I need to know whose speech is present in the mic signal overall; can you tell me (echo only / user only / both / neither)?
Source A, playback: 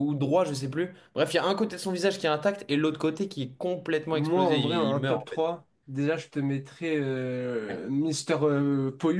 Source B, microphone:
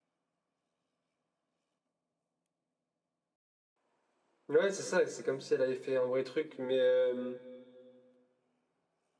user only